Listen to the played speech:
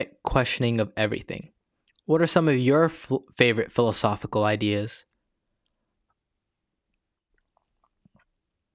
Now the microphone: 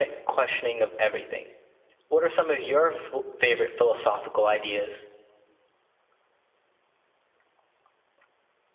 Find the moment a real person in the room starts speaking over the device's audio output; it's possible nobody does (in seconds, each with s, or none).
none